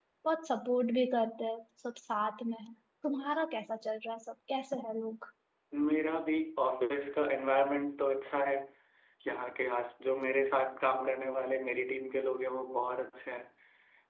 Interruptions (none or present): none